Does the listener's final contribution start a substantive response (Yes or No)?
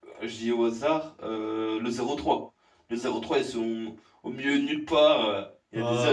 No